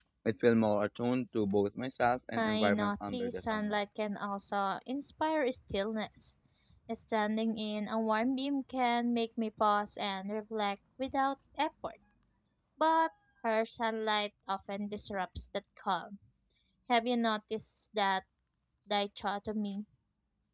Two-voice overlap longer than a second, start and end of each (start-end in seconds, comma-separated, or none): 2.4-3.8